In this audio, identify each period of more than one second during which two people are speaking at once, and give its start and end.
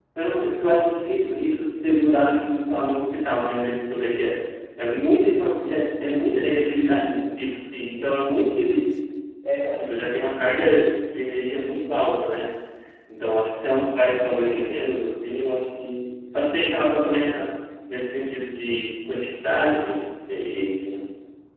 none

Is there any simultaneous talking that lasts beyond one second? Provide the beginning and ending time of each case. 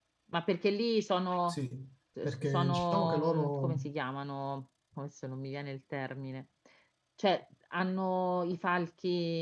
2.2-3.8

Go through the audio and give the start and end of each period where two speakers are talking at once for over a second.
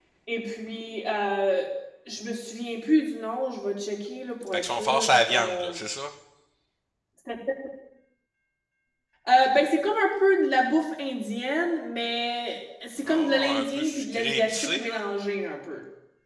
4.5-5.8, 13.1-15.0

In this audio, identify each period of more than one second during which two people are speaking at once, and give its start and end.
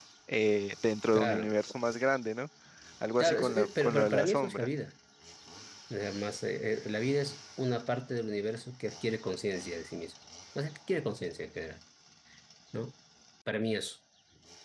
3.2-4.7

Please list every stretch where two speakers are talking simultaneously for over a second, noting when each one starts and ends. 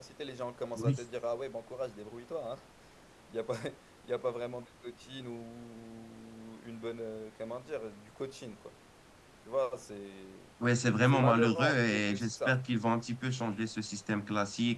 11.1-12.6

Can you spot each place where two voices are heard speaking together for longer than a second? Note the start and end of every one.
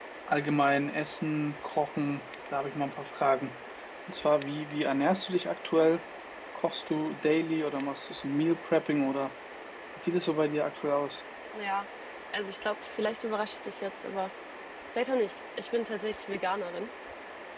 none

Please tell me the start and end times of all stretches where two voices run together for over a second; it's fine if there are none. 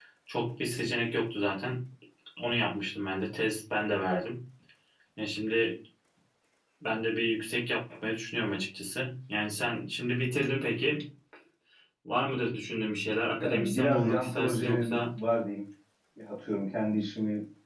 13.4-15.0

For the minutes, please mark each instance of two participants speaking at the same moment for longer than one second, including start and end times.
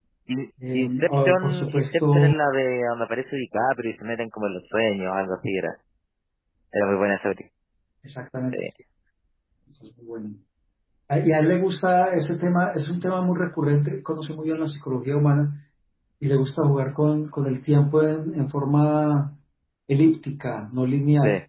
0.7-2.3

